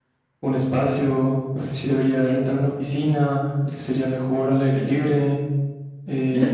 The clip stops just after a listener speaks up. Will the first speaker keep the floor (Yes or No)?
No